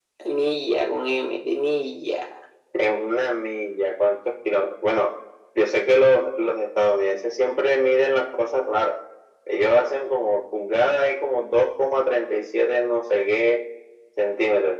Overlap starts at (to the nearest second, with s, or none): none